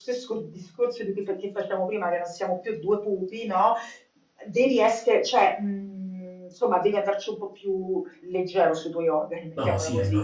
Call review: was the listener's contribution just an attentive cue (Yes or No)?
No